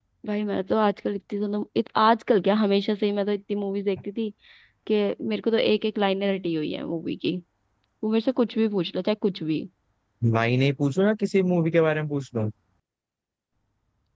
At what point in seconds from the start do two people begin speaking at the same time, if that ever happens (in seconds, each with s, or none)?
none